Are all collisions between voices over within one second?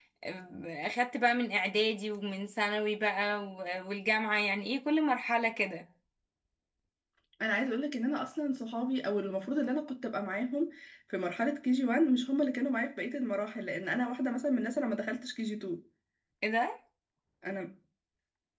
Yes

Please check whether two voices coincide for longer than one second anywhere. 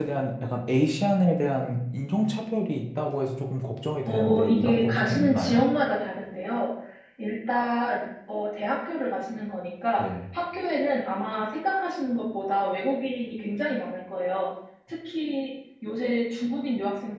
Yes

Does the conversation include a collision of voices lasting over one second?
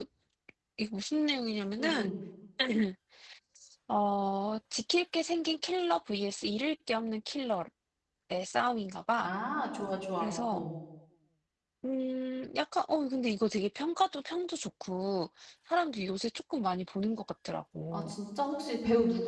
No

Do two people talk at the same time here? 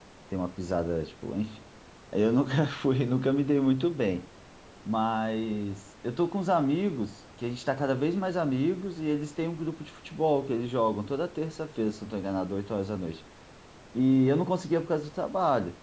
No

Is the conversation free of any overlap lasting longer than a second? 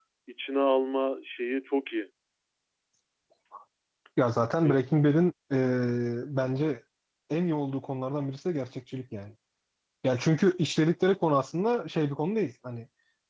Yes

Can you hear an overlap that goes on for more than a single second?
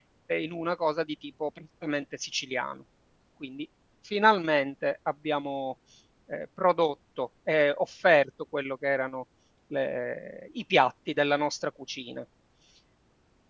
No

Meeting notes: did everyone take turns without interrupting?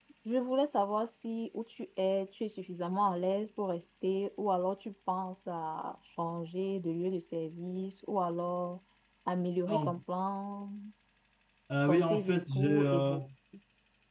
No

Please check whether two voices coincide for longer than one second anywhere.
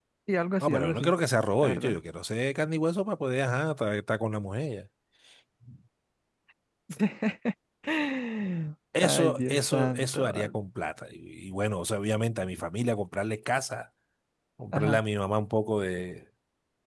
Yes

